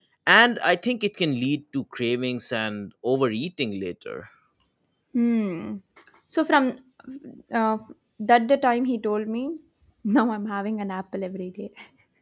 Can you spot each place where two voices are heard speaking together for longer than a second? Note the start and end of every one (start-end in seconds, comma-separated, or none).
none